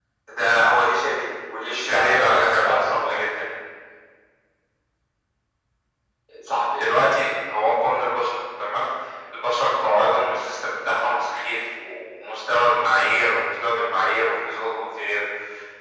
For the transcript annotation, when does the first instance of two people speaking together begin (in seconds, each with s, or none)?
1.6 s